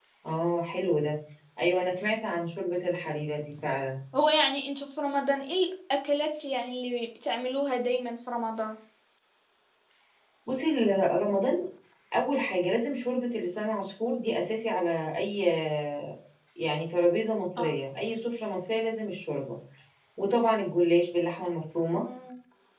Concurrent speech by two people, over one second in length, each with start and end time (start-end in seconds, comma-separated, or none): none